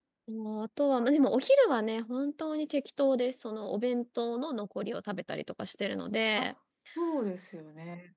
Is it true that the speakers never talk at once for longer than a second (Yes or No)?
Yes